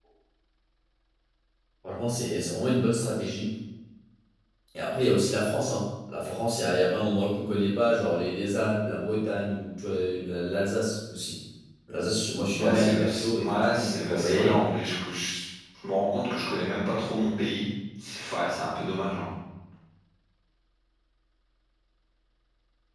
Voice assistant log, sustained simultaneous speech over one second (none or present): present